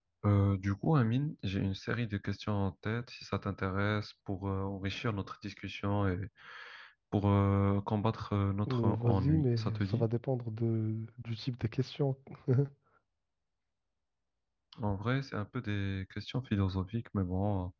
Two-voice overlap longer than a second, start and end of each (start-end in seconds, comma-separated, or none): 8.7-10.1